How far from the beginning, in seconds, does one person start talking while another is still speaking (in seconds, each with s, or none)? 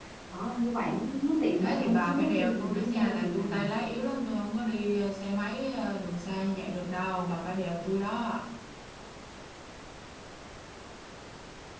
1.6 s